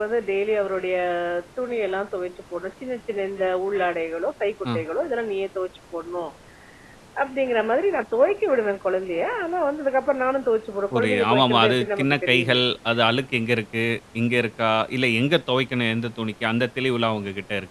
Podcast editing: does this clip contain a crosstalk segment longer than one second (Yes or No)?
Yes